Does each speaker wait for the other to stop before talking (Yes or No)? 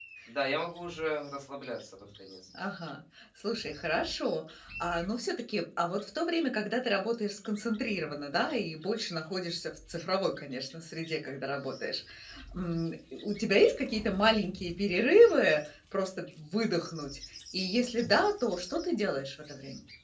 Yes